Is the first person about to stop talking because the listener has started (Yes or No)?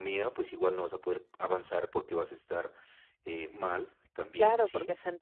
Yes